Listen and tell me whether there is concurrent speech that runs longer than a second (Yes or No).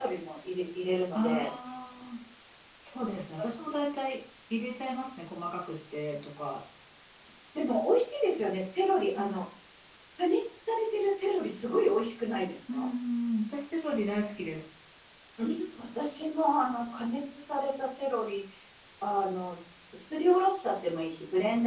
No